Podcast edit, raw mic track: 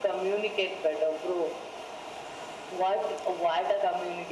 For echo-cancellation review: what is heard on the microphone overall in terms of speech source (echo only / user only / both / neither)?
echo only